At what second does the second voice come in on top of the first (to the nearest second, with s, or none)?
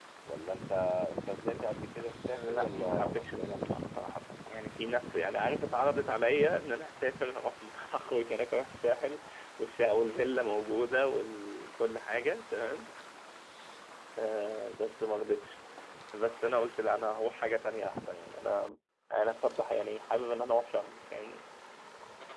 2 s